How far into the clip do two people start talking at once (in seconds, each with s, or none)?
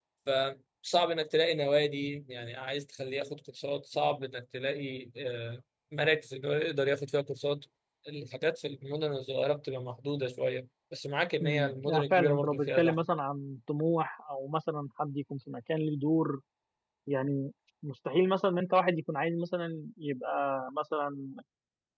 11.4 s